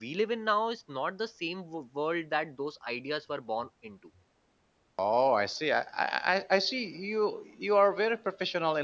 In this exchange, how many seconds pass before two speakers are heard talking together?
none

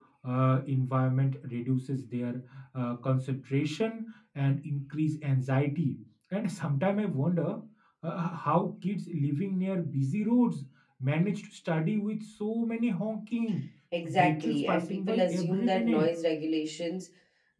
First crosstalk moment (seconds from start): 14.0 s

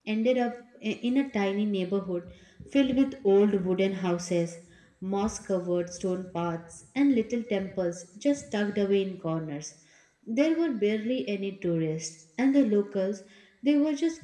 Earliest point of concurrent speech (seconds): none

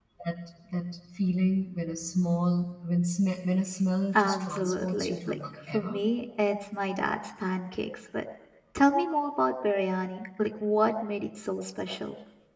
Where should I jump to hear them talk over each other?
4.1 s

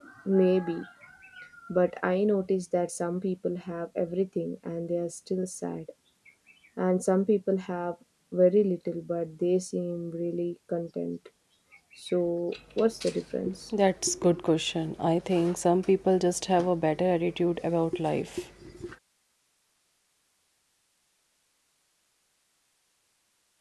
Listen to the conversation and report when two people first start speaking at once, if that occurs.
none

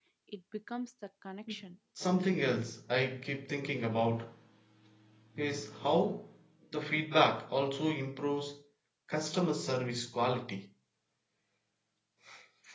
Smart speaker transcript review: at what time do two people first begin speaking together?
none

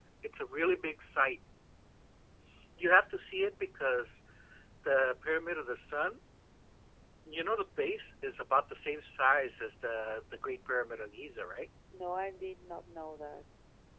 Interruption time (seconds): none

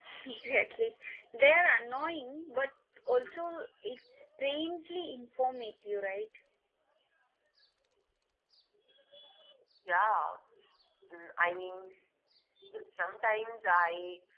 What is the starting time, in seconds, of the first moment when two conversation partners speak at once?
none

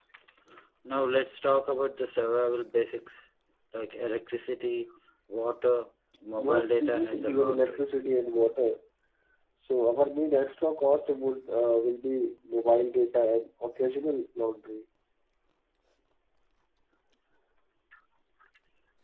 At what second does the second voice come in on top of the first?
6.3 s

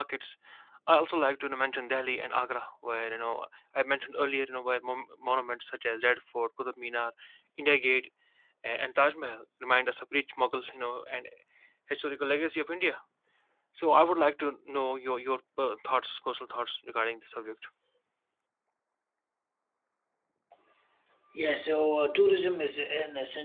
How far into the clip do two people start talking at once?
none

